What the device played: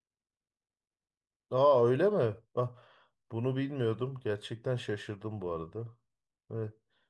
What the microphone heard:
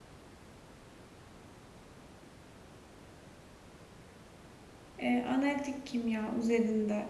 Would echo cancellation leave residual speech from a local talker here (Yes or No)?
Yes